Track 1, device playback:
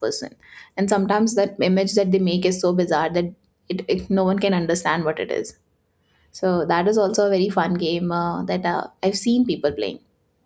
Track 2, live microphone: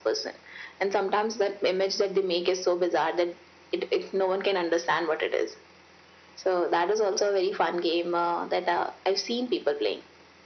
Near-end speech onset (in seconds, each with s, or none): none